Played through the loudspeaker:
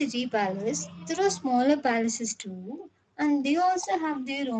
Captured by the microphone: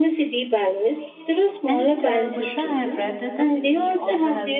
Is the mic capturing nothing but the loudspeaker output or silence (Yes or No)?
No